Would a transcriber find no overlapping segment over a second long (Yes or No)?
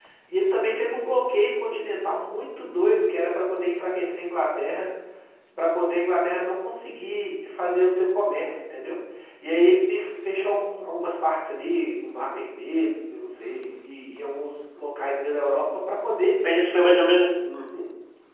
Yes